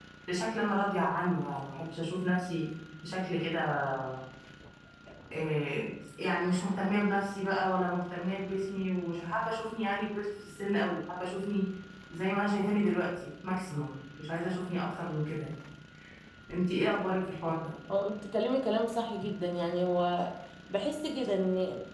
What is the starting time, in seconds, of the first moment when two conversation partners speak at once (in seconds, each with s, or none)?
none